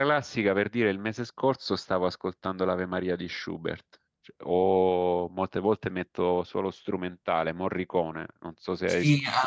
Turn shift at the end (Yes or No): Yes